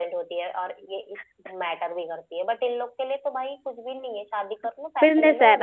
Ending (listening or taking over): taking over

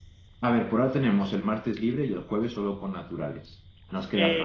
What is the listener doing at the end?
taking over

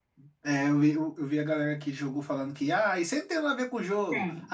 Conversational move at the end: listening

